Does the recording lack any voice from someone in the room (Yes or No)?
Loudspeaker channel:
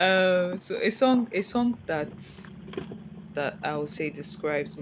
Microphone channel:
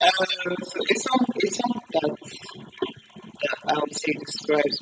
Yes